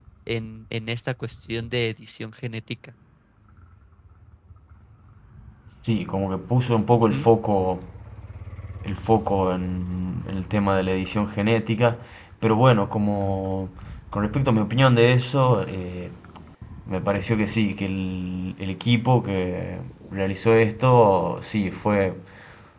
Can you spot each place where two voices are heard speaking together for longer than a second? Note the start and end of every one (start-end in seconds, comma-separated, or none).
none